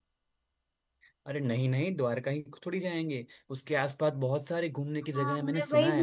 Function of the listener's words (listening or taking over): taking over